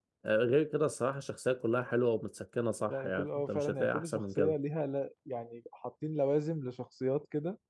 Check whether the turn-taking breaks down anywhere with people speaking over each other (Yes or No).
Yes